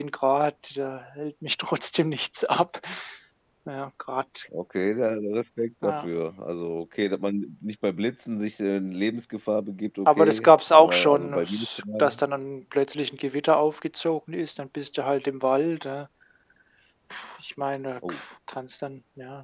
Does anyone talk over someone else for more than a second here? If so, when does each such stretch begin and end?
10.1-12.2

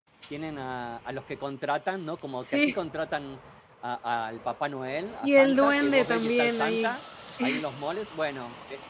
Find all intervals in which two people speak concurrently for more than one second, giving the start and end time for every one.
5.2-7.0

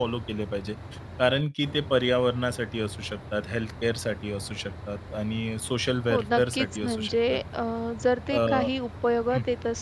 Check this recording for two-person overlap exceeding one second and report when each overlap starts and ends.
6.1-7.4

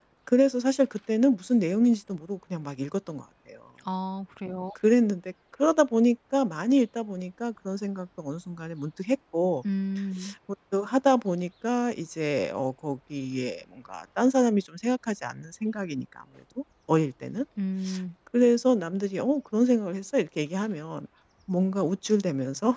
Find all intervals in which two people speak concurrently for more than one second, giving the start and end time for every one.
none

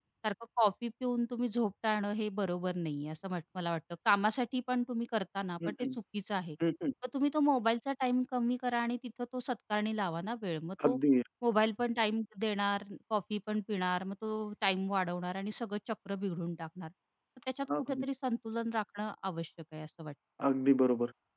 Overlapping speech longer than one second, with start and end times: none

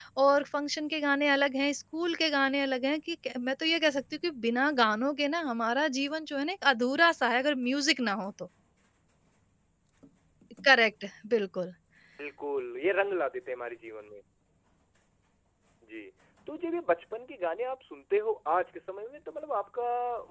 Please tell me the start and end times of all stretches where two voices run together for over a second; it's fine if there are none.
none

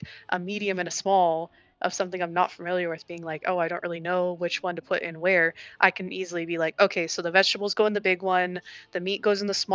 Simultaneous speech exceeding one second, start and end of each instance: none

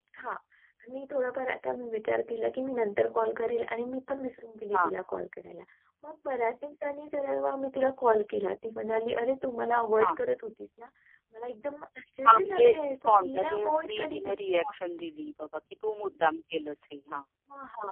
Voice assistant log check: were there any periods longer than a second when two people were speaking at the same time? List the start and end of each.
12.3-14.3

